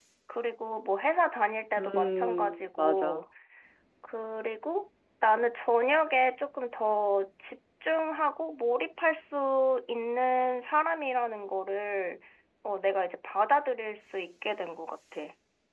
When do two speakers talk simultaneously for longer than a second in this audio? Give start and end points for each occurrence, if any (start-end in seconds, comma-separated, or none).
1.8-3.2